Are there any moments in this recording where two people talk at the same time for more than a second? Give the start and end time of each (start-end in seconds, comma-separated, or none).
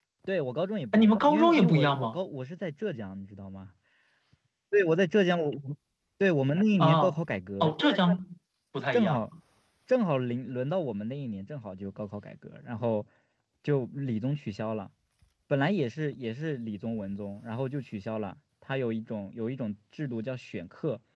0.9-2.2